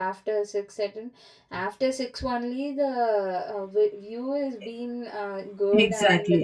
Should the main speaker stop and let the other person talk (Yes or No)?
Yes